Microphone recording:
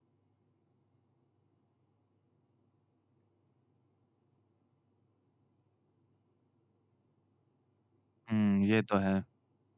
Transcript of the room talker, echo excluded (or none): हुँ, ये तो है।